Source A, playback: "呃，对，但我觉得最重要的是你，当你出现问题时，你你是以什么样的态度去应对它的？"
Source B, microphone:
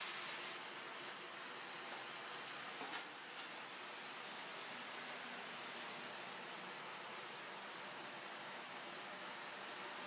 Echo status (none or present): none